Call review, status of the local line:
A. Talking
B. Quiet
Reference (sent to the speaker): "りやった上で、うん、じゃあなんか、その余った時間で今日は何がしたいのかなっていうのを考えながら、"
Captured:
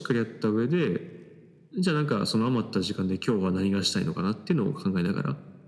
B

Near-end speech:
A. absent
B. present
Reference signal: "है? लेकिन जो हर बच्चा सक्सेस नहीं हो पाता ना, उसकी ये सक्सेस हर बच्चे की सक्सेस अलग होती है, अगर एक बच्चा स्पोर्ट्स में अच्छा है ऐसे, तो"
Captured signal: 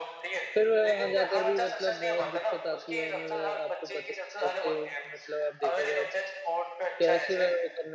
B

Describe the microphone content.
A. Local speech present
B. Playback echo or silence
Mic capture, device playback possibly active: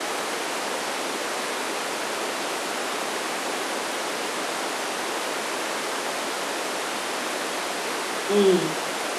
A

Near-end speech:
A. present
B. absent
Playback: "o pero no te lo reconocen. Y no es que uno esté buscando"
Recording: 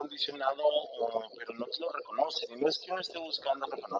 B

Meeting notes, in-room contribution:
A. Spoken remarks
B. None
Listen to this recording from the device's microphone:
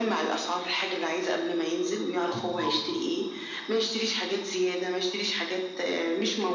A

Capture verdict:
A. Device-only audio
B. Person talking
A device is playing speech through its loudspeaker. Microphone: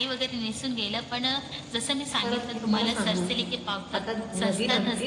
B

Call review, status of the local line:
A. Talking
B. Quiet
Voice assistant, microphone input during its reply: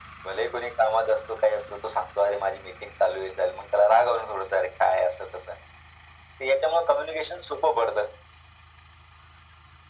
B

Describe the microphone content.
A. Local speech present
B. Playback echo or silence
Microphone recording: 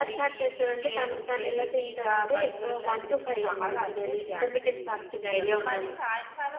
A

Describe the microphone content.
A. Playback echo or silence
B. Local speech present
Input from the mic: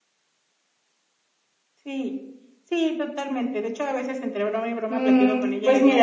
B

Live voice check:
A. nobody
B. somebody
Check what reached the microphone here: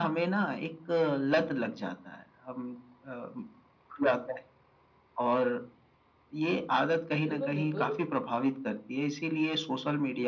B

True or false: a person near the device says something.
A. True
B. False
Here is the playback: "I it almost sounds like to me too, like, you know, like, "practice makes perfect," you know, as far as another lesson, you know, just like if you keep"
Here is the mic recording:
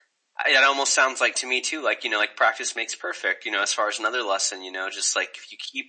B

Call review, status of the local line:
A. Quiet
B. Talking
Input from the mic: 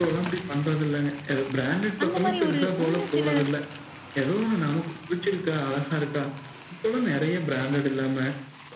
B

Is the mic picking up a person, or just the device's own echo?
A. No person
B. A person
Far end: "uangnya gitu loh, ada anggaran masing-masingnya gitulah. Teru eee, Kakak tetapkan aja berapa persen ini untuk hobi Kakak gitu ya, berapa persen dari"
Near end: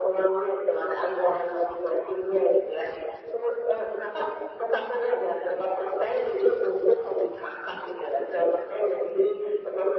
A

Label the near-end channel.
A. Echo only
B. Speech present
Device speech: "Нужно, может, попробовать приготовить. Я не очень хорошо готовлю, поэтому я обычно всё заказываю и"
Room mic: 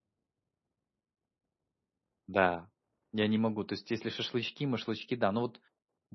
B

